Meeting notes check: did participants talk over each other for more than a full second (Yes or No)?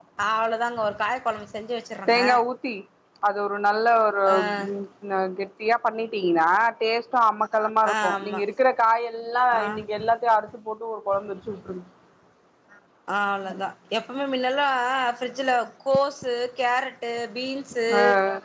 No